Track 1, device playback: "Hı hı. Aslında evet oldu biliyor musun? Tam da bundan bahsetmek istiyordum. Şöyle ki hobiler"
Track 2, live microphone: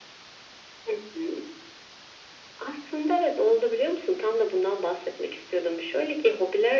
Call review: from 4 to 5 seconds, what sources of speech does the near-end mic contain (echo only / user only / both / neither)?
echo only